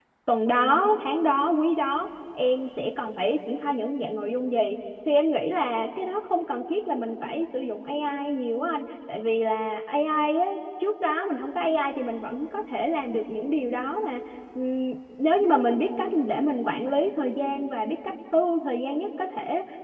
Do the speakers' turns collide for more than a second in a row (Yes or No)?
No